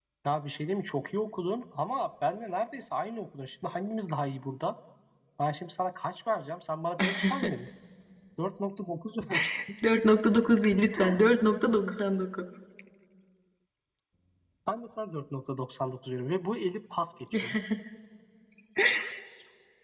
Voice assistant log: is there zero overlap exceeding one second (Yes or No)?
Yes